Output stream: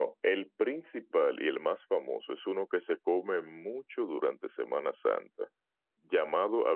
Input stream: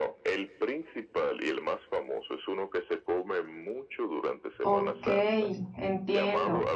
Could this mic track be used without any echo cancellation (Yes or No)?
No